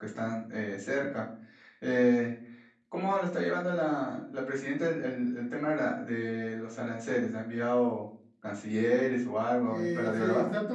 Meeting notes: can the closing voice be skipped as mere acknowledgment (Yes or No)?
No